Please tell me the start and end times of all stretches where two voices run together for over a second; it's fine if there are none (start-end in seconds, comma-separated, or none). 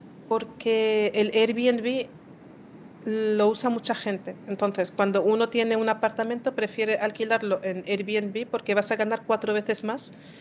none